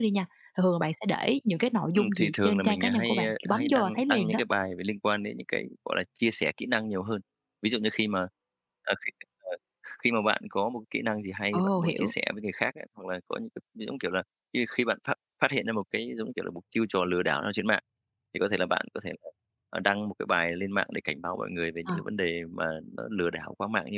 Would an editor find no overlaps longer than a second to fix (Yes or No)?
No